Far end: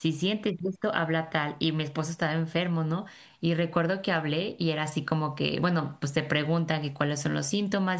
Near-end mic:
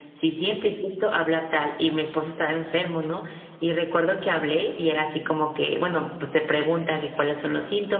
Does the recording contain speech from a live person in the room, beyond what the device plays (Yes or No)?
No